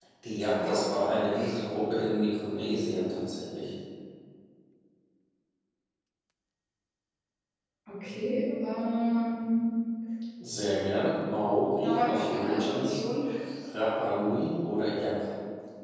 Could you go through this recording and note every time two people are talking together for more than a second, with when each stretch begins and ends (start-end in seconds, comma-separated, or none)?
11.8-13.0